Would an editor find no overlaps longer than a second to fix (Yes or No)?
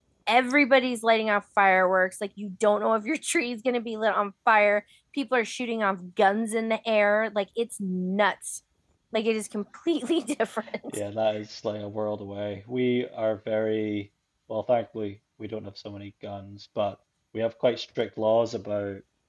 Yes